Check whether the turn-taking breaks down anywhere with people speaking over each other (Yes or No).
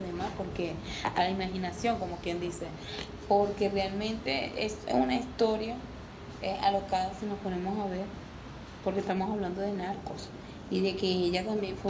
No